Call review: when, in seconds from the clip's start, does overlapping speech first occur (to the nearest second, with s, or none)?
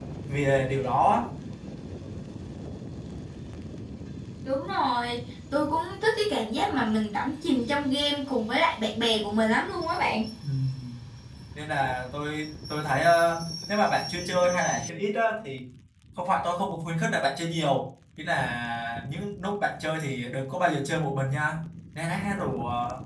none